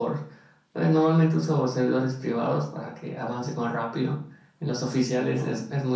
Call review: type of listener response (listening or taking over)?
listening